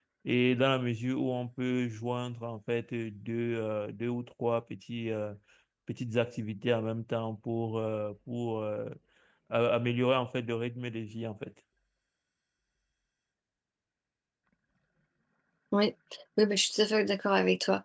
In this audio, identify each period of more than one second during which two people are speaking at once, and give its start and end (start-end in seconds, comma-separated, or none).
none